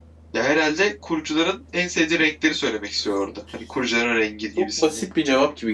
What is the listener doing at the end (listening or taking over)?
taking over